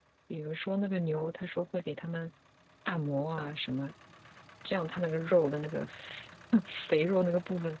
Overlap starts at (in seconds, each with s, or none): none